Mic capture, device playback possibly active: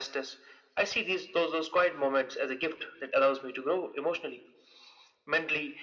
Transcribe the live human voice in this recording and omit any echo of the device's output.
none

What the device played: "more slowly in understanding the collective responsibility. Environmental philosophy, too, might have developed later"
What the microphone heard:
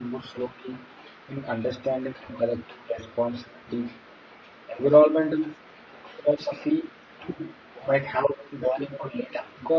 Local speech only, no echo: none

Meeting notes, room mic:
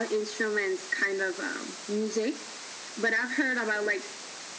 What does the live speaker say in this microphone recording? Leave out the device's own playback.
none

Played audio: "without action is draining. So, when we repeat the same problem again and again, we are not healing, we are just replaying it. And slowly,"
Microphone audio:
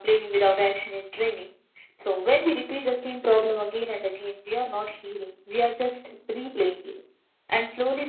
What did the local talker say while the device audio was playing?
none

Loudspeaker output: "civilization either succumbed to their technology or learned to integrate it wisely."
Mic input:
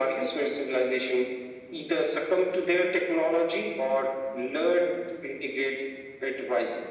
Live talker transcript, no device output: none

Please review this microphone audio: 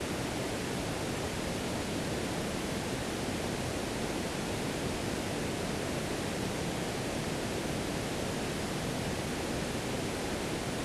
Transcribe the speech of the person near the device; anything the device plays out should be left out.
none

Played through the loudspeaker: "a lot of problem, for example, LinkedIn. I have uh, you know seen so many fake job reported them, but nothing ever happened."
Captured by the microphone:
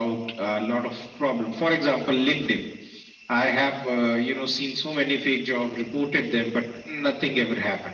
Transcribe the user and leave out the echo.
none

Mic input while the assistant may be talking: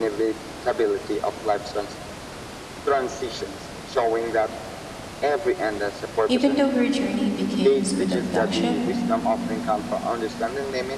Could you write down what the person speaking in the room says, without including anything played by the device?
Even though her journey begins with abduction,

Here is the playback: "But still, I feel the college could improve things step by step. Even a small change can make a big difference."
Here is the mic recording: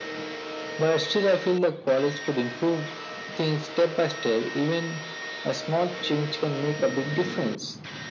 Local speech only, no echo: none

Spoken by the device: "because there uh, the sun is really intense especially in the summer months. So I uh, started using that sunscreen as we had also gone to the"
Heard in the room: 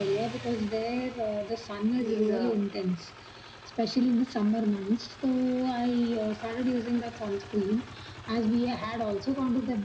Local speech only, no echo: these. Uh,

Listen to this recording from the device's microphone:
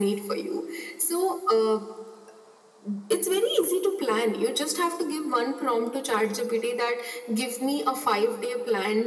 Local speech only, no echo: none

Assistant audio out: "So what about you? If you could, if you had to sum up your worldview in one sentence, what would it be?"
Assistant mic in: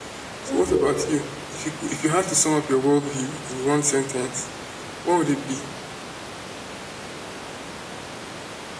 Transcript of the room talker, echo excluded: hmm

